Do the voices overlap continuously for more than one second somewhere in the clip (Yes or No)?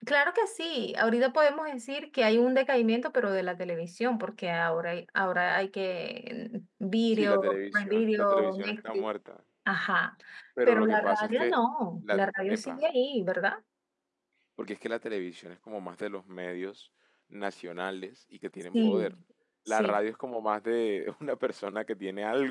Yes